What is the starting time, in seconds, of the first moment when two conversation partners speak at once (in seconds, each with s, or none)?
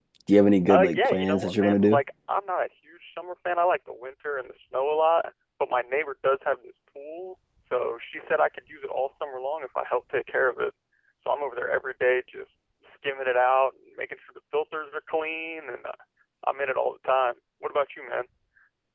0.7 s